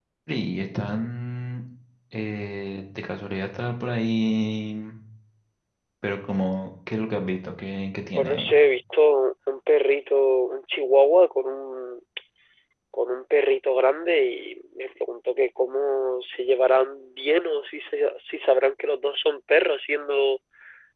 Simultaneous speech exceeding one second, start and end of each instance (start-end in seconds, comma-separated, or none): none